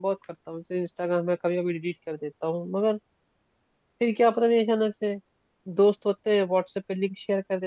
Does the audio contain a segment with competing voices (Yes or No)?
No